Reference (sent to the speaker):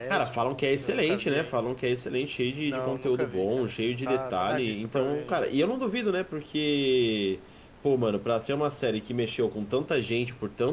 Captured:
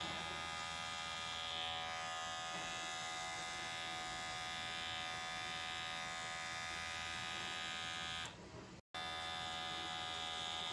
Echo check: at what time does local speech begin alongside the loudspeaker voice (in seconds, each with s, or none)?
none